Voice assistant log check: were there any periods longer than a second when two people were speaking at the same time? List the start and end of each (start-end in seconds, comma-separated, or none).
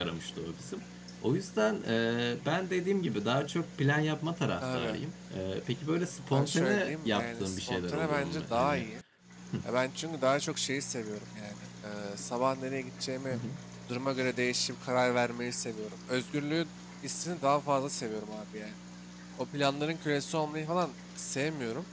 6.3-8.9